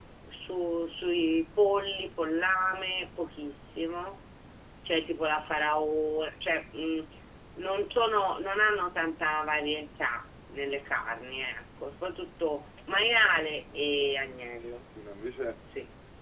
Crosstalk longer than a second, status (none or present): present